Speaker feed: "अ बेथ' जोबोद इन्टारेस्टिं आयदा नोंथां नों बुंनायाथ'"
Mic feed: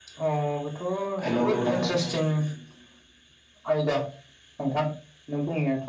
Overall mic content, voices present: both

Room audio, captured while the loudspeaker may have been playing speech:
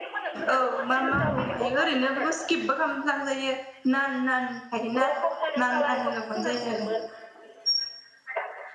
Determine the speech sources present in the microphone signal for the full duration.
both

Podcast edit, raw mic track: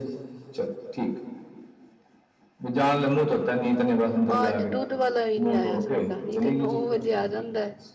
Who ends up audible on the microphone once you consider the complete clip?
both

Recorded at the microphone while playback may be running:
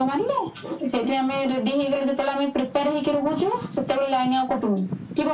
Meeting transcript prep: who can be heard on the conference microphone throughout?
echo only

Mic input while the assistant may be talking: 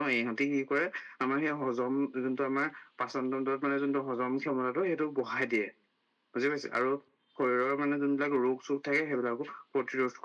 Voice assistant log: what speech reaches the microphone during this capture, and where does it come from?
echo only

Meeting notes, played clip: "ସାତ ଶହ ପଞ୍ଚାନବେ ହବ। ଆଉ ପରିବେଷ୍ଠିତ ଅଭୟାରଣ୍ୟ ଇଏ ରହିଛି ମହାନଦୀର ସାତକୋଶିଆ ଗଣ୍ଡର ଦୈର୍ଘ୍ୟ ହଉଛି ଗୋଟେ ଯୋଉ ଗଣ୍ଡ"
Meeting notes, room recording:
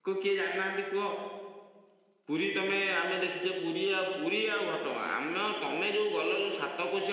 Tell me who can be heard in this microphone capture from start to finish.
user only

